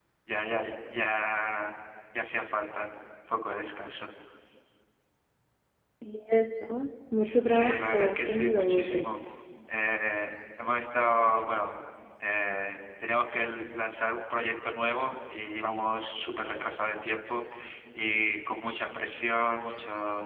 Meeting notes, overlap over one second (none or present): present